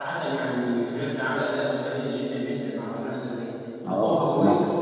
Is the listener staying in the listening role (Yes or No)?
Yes